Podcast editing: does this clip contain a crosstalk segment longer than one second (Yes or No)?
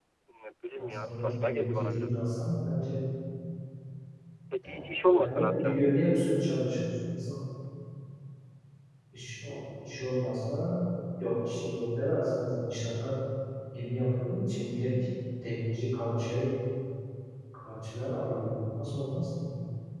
Yes